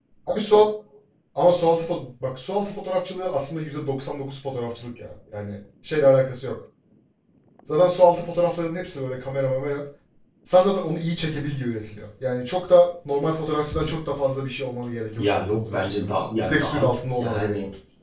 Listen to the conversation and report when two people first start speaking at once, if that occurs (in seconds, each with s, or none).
15.2 s